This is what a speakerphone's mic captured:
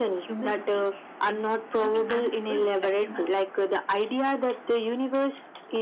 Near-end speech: none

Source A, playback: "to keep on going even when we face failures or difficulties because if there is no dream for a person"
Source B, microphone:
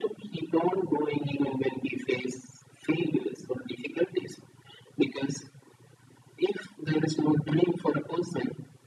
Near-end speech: none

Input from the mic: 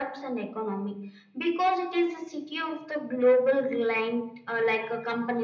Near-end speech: none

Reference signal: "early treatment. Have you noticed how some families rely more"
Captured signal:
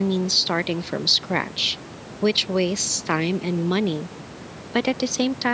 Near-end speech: present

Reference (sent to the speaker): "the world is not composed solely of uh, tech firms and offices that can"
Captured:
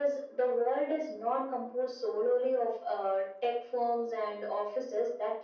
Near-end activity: none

